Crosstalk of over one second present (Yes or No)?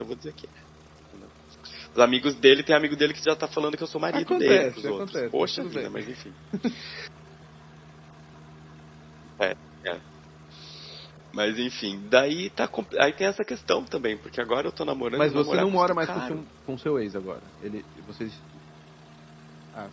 Yes